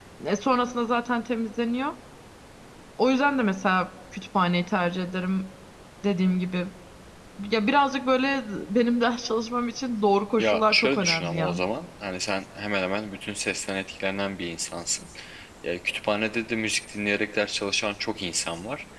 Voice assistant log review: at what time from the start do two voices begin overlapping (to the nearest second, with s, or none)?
10 s